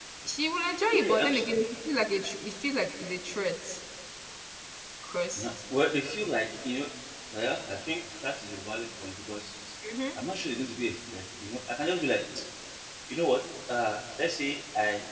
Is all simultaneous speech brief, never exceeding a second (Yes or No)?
Yes